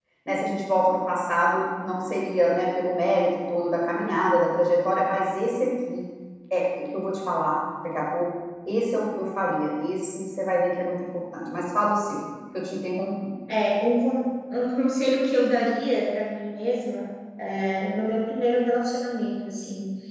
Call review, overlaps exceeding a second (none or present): none